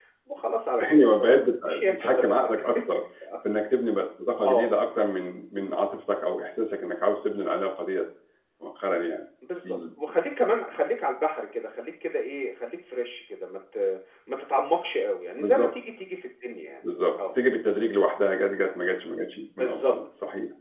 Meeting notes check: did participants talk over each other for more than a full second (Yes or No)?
Yes